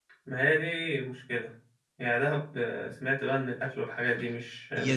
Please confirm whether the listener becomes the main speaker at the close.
Yes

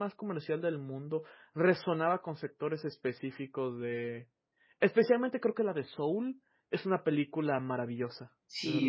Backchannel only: No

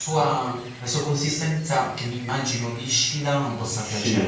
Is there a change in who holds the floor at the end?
Yes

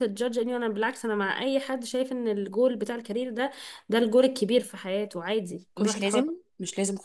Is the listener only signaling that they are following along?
No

